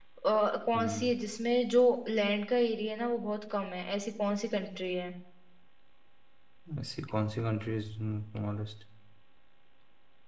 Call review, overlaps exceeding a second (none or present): none